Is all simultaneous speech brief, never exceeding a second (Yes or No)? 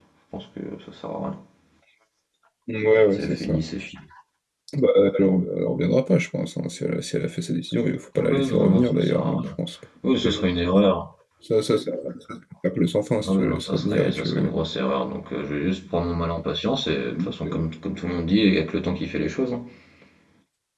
No